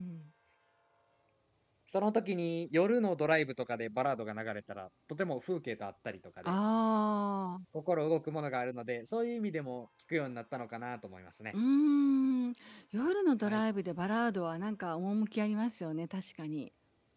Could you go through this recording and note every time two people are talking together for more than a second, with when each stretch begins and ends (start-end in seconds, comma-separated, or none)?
none